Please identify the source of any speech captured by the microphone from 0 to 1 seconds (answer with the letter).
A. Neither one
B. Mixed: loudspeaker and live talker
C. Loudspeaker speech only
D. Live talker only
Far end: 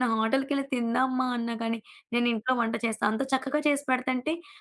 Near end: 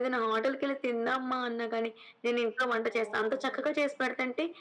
C